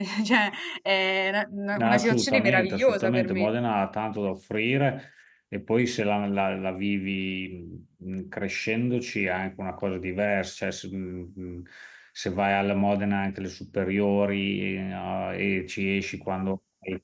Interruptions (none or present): present